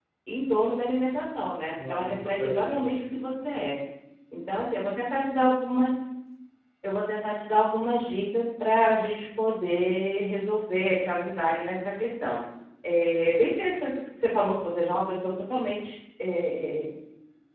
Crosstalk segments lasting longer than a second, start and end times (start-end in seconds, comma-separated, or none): 1.9-3.4